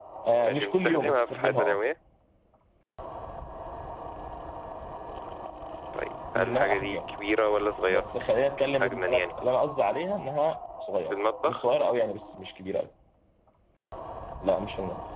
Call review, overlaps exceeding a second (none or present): present